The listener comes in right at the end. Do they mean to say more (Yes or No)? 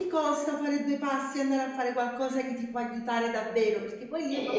No